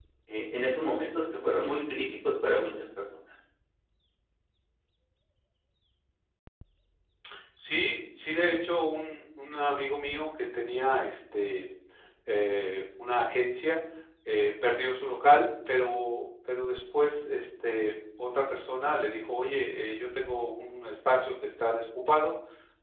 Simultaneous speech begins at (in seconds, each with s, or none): none